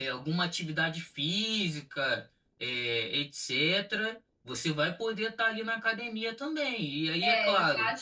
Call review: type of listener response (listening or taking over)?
taking over